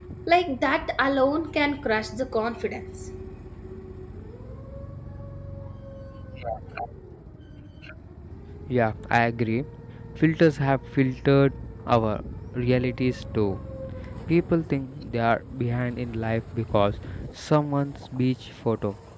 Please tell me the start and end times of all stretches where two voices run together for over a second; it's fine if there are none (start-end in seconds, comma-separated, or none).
none